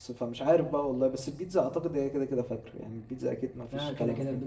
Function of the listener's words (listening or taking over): taking over